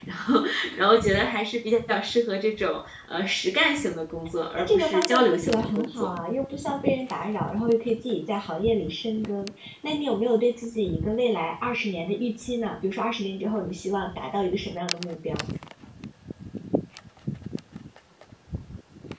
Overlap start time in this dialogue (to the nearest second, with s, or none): 5 s